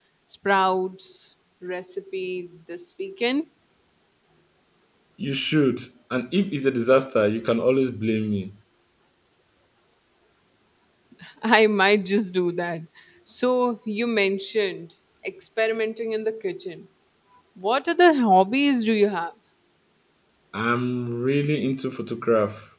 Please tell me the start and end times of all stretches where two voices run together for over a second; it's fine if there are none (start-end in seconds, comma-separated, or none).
none